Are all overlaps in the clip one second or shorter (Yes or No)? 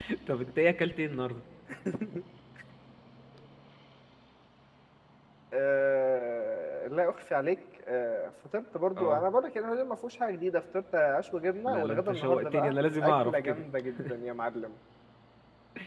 No